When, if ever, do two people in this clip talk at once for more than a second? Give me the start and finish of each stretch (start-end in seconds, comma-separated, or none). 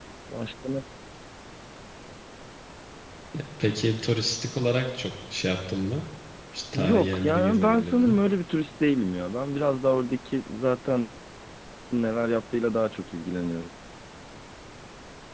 6.7-8.2